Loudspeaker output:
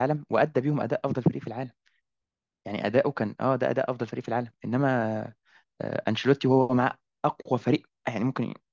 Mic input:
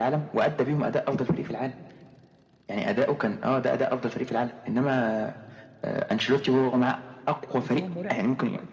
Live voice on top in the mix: No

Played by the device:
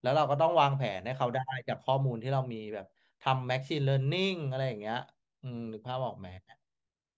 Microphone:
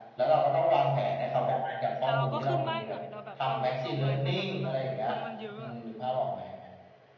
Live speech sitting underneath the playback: Yes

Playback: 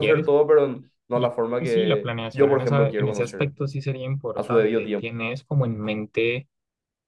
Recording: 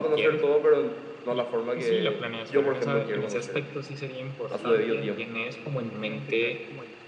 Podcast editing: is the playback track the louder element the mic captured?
Yes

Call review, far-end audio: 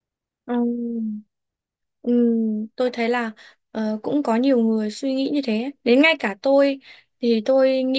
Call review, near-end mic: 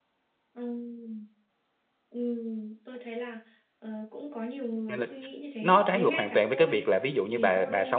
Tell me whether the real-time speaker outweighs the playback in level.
Yes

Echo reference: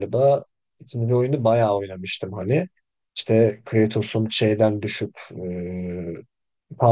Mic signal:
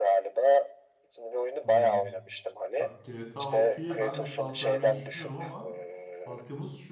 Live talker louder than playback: No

